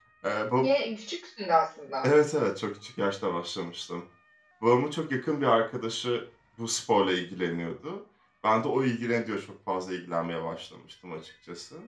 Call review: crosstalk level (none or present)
none